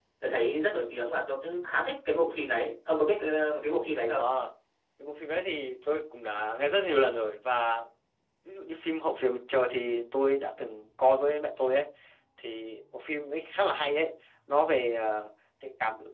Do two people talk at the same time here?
No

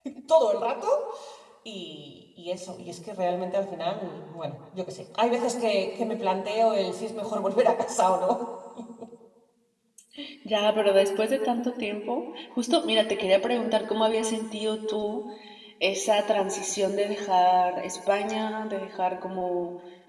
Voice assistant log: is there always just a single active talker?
Yes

